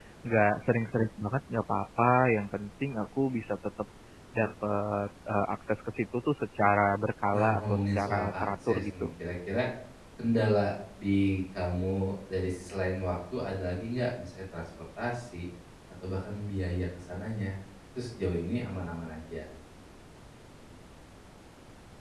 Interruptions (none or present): present